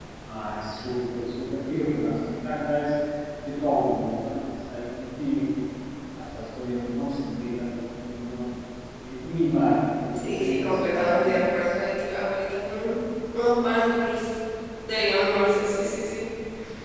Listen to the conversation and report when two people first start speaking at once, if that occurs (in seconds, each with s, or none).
10.1 s